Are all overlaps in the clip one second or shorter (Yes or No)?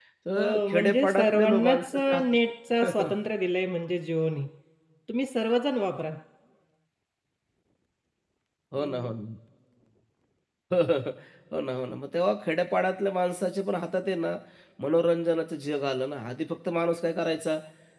No